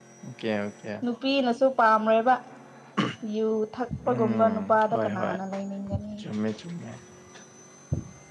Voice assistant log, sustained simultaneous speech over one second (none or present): present